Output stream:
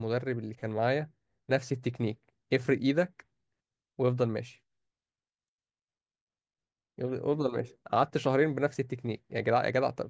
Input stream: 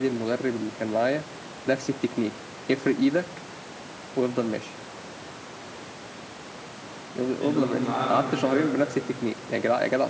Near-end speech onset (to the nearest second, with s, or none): 7 s